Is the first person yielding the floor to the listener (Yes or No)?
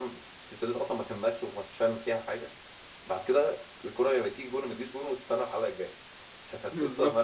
Yes